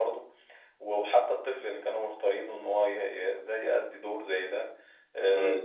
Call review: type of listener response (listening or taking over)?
listening